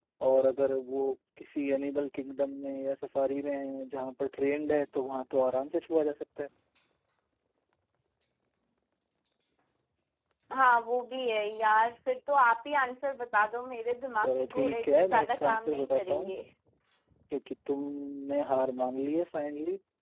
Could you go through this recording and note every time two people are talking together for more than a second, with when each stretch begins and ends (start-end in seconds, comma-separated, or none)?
14.2-16.3